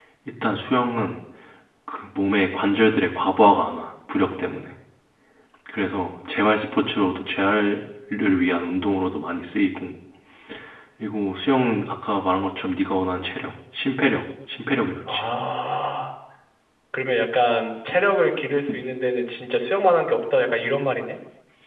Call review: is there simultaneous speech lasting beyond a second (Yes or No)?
No